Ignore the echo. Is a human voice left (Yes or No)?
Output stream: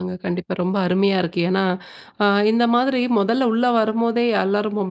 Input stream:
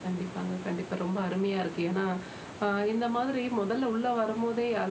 No